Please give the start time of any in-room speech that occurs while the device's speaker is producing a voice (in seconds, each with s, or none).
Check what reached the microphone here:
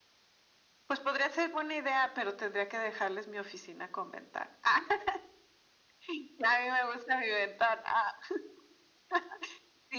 none